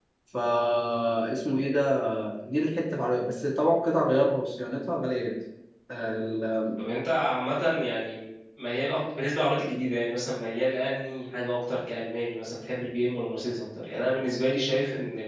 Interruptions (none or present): none